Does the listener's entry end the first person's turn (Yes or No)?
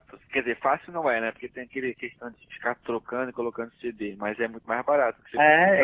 Yes